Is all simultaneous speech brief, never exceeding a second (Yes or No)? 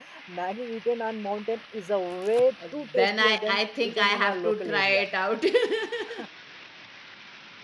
No